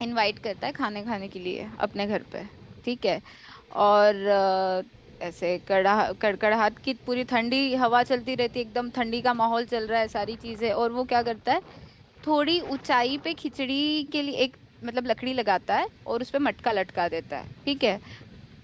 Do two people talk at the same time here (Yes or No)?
No